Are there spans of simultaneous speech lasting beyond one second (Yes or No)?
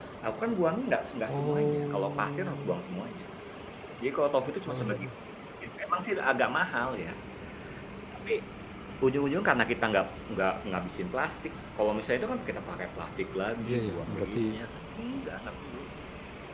Yes